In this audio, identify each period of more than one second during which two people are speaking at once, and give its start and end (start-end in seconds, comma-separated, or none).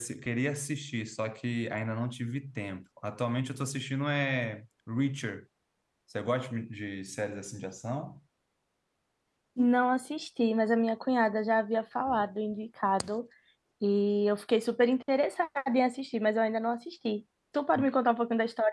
none